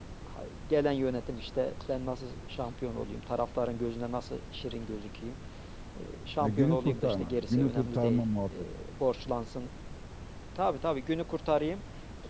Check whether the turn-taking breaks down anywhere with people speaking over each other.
Yes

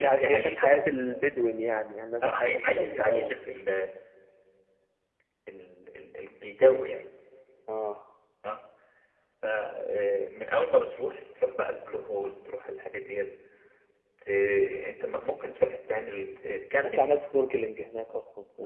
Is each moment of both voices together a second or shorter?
No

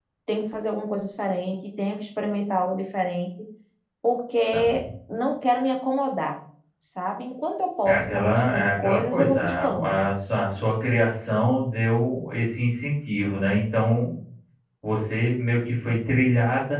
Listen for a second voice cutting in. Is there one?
Yes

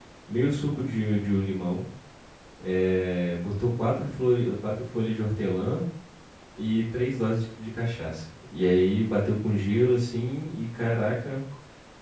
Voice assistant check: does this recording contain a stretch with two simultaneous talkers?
No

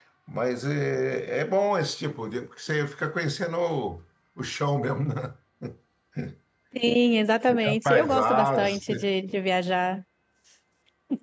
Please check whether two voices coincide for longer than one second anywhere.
Yes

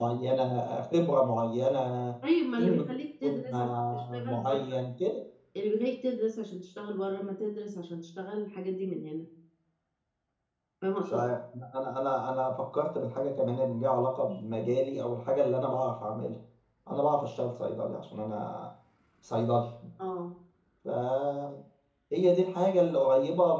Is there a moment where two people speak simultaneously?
Yes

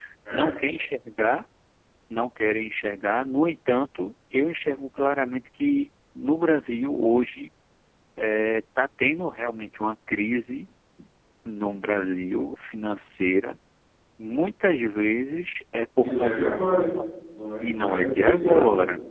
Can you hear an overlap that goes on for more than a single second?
Yes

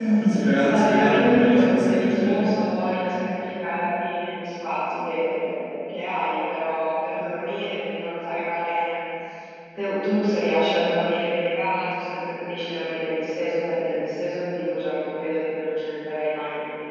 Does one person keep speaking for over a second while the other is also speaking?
Yes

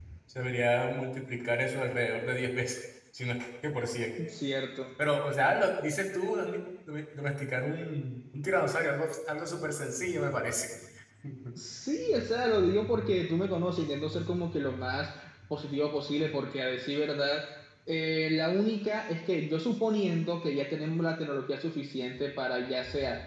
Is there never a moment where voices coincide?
Yes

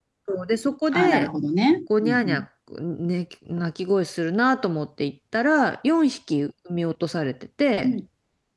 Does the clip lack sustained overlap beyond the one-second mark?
Yes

